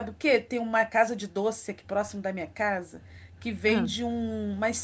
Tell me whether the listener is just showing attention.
Yes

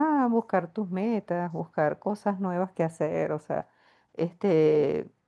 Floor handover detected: No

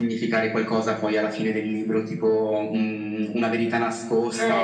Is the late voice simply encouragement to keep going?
No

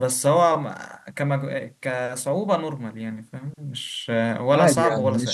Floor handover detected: Yes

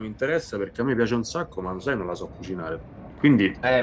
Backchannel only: No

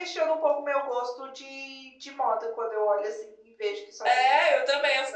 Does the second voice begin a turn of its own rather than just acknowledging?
Yes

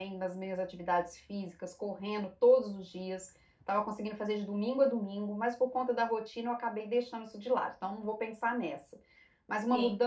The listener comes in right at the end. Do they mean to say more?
No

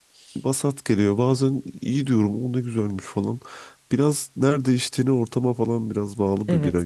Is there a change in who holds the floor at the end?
Yes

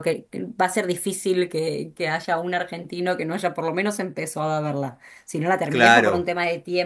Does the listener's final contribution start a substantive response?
No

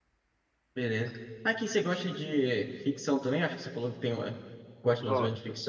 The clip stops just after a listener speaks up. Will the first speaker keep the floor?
No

